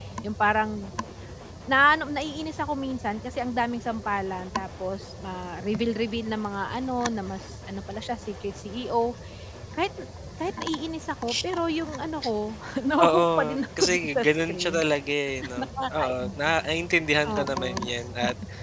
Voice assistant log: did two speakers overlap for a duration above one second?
Yes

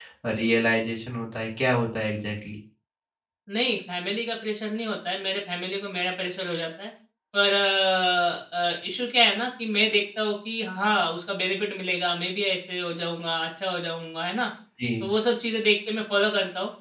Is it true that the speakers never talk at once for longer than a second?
Yes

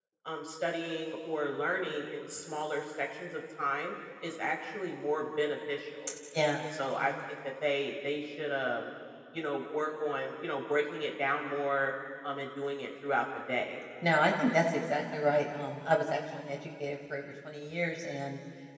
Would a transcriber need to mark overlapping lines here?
No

